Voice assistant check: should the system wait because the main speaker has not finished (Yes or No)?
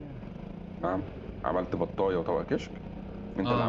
No